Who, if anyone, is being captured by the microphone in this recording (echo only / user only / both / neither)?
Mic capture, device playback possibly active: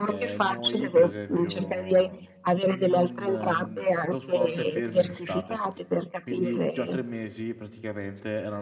both